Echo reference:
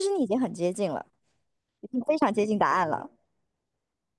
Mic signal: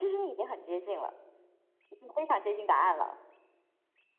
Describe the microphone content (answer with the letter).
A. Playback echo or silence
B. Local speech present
A